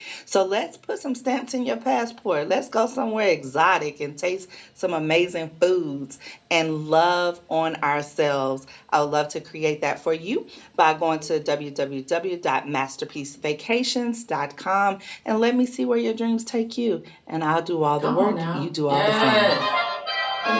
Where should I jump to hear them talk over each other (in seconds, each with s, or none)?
18.0 s